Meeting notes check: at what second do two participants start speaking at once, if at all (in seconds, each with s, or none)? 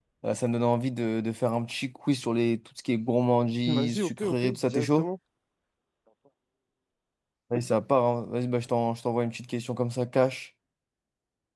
3.7 s